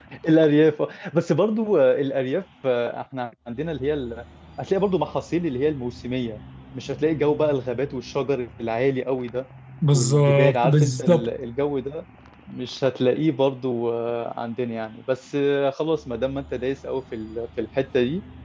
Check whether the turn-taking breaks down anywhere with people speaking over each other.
Yes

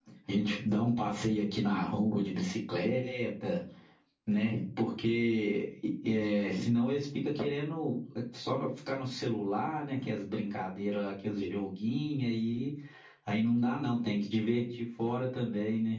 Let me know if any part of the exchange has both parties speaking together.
No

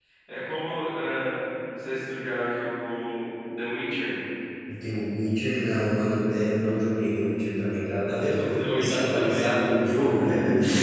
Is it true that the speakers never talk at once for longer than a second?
No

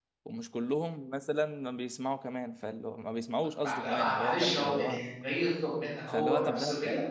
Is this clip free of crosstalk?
No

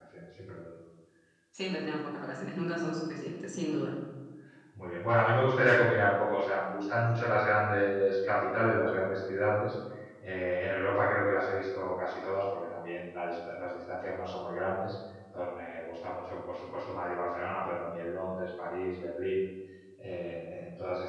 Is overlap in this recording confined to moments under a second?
Yes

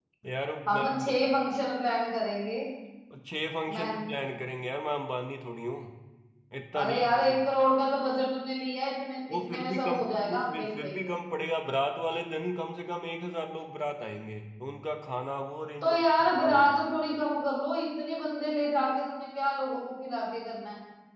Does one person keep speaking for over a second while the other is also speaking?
Yes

